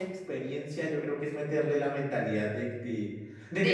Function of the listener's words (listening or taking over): listening